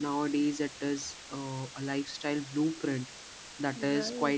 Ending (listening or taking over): listening